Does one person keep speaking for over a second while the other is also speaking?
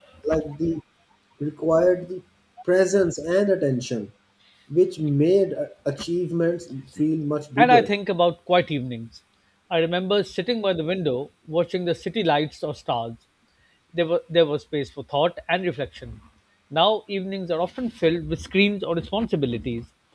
No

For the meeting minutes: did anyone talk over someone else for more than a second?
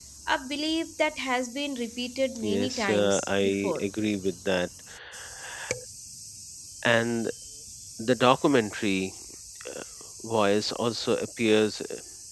Yes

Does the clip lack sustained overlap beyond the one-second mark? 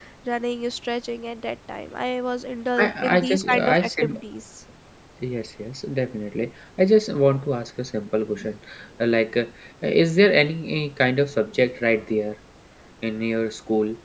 No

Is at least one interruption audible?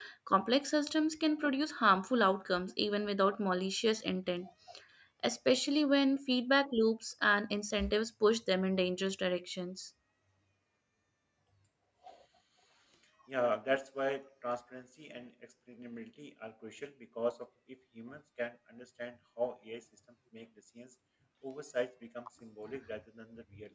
No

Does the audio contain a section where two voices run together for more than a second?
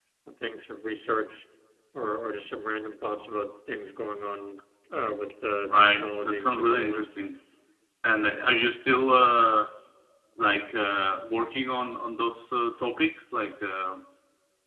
Yes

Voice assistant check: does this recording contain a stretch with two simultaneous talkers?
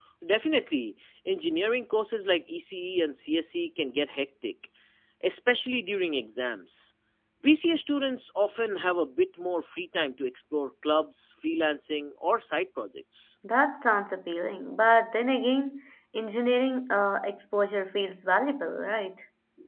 No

